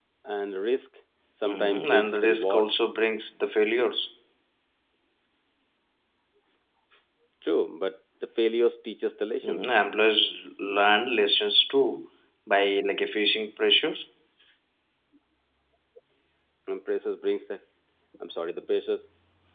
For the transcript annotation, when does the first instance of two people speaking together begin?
1.4 s

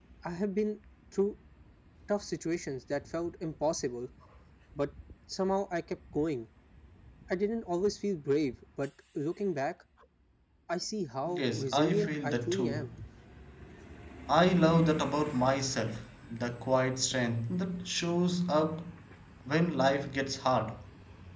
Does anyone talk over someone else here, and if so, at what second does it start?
11.4 s

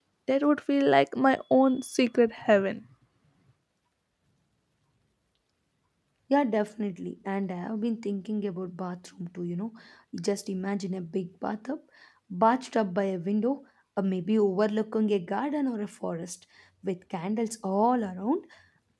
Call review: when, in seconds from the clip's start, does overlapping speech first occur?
none

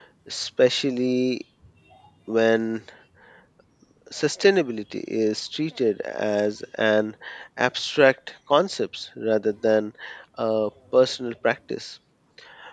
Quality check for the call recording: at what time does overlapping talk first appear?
none

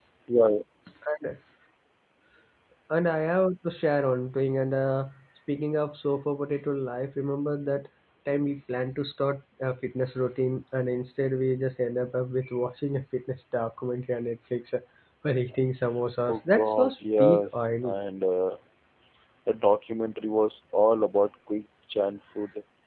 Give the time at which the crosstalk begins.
16.3 s

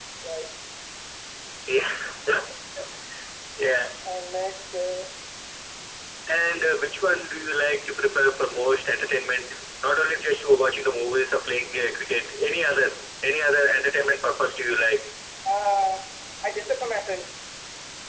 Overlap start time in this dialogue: none

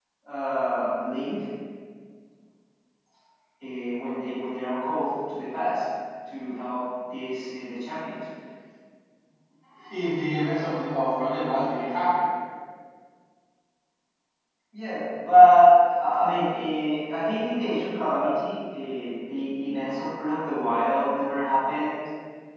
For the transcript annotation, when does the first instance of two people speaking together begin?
none

